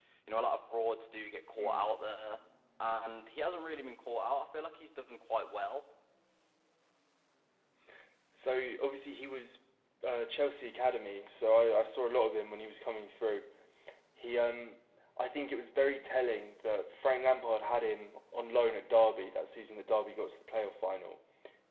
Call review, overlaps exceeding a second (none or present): none